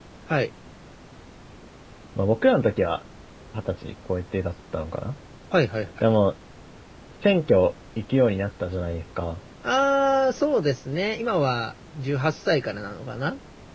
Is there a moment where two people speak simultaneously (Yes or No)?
No